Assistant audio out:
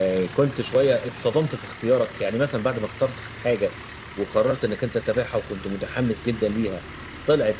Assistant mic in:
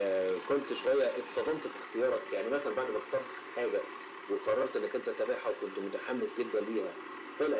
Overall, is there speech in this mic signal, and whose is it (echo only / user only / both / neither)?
echo only